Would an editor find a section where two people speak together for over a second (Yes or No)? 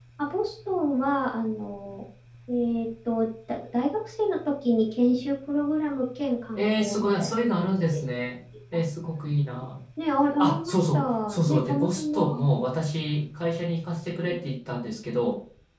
Yes